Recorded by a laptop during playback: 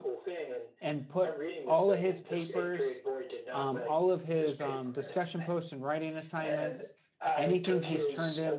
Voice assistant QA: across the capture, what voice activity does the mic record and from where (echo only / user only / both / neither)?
both